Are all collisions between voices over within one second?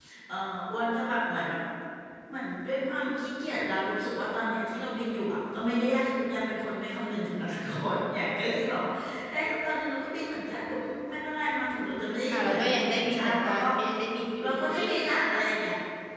No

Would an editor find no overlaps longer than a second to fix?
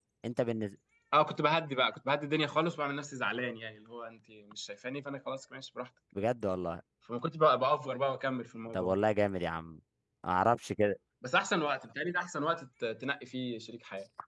Yes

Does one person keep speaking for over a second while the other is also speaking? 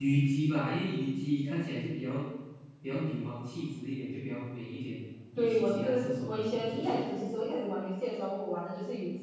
Yes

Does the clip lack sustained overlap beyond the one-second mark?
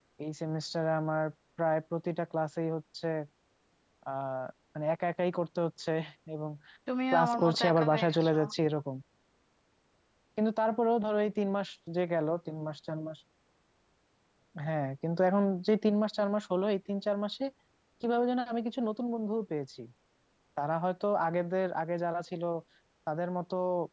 No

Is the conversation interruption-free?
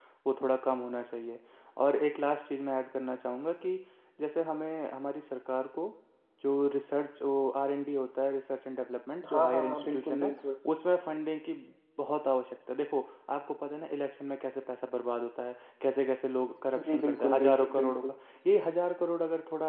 No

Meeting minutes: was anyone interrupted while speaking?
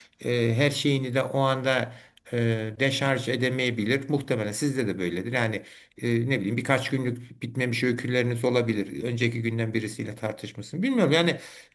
No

